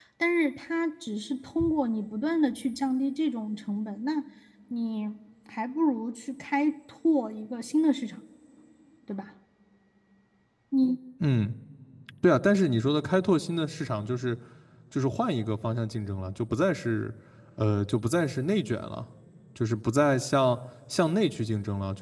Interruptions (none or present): none